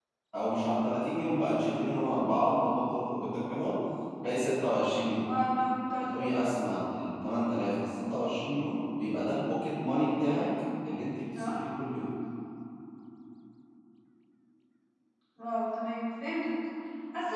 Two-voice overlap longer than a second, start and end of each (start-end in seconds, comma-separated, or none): none